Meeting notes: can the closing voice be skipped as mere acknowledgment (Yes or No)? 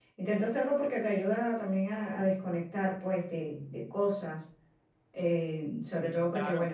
Yes